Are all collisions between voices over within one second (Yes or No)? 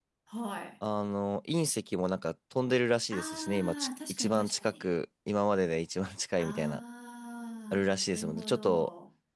No